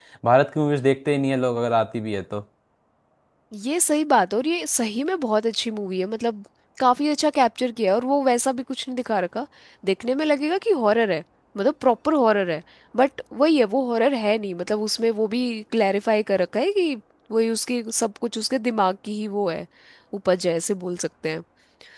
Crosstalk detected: No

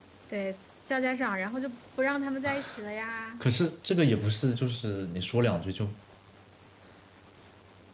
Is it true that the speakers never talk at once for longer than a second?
Yes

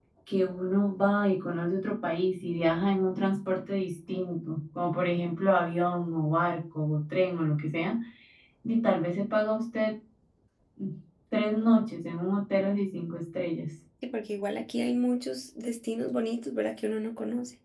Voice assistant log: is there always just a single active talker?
Yes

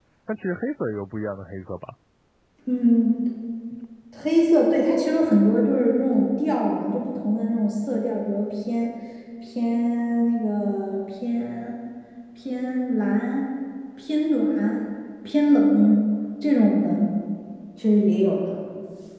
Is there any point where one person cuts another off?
No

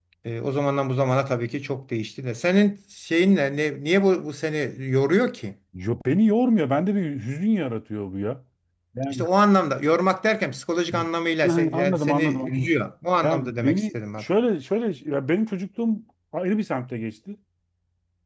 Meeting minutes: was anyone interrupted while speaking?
Yes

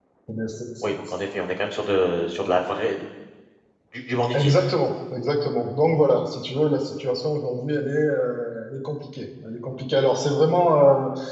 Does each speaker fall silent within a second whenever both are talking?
Yes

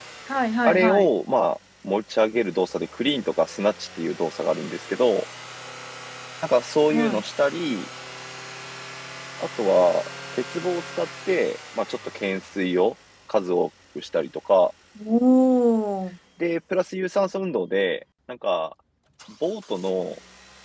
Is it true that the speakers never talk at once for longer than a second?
Yes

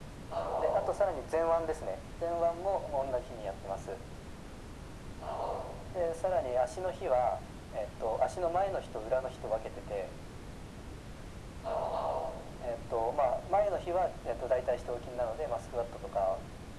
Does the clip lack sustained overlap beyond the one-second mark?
Yes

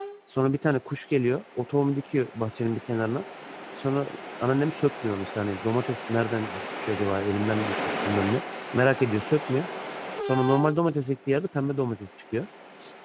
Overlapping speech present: No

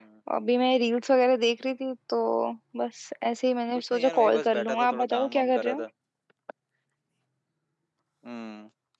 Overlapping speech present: Yes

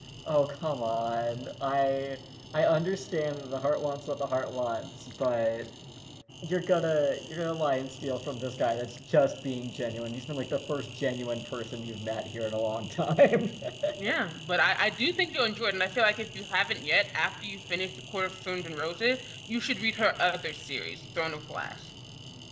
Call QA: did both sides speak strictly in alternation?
Yes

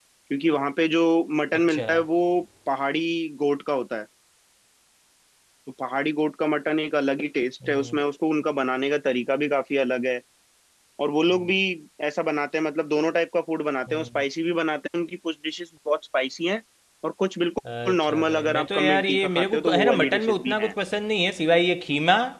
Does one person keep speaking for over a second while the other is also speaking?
Yes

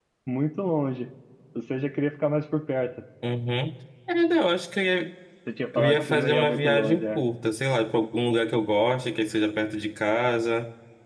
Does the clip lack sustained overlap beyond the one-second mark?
No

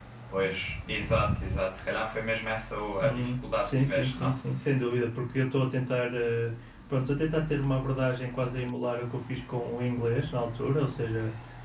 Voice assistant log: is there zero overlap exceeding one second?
No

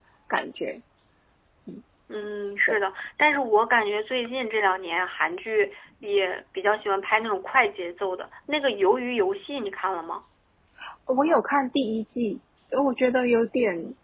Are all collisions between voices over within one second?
Yes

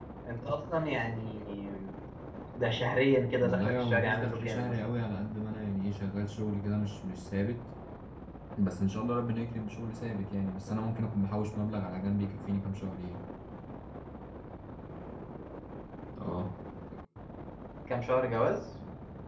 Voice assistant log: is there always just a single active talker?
No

